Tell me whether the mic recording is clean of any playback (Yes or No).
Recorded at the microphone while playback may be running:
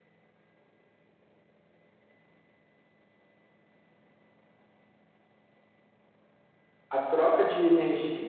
Yes